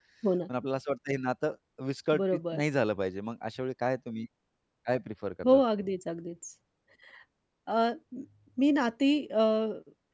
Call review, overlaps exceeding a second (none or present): none